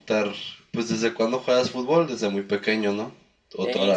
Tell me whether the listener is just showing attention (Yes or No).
No